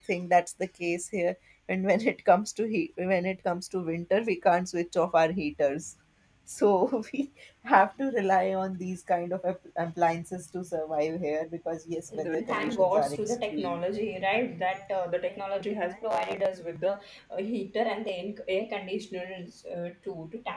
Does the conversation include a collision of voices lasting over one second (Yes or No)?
Yes